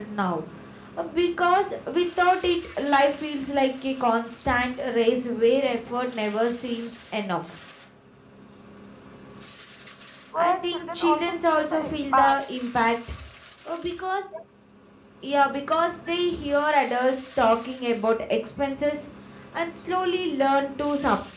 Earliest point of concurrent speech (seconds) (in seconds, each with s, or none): 10.5 s